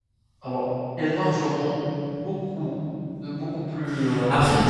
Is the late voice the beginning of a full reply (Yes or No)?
No